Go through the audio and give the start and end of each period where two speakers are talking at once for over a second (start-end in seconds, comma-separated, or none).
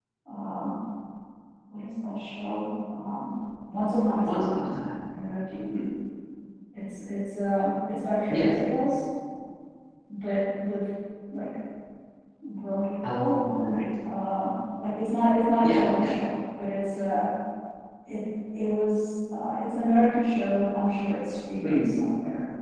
none